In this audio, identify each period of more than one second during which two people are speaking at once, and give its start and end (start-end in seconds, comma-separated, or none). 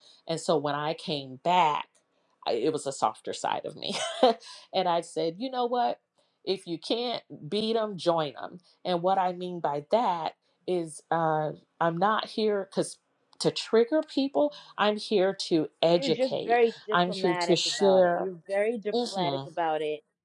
15.9-18.3